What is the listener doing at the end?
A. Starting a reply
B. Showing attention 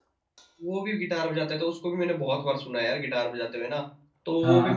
B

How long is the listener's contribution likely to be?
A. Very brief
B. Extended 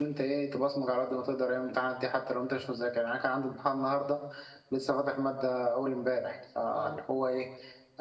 A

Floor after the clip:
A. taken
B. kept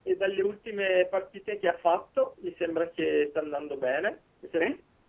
B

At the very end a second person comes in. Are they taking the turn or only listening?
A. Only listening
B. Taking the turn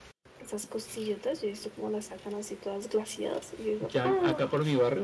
B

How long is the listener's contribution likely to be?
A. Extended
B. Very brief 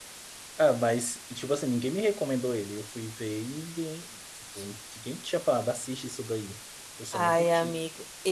A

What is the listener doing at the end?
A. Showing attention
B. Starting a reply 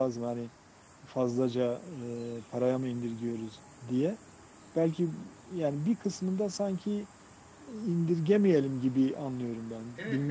B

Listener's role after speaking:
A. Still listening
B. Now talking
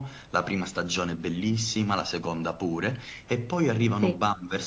A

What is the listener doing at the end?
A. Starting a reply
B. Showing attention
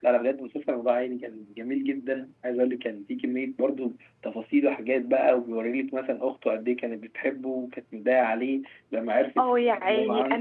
A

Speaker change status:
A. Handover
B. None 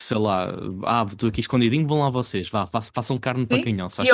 A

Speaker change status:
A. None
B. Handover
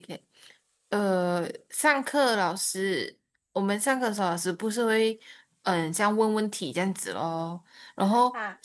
A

